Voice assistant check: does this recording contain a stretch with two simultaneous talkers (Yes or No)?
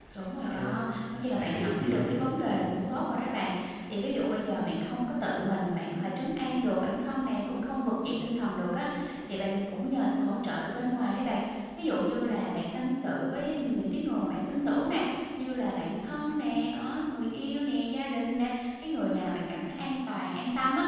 Yes